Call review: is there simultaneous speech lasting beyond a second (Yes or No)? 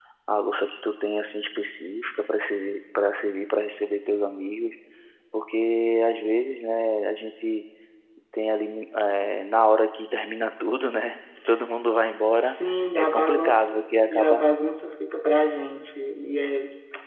Yes